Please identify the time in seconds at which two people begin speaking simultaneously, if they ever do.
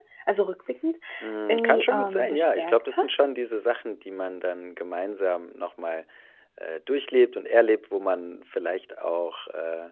1.5 s

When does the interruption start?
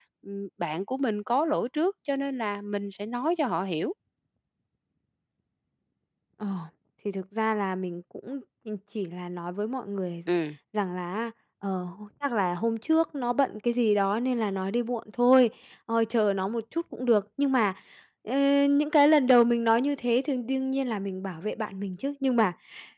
none

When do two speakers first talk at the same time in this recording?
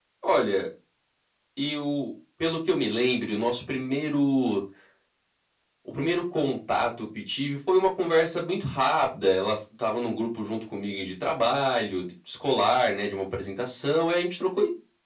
none

